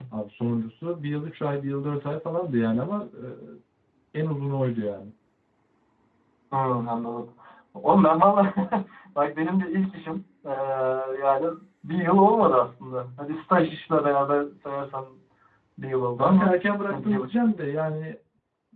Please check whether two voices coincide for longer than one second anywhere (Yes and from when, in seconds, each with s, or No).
No